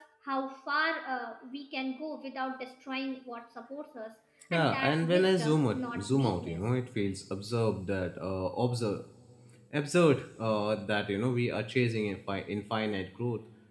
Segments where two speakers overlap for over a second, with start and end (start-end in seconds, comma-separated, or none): 4.5-6.6